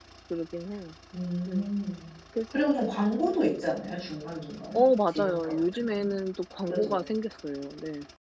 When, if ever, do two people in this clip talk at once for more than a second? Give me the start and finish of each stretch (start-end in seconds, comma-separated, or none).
4.7-6.1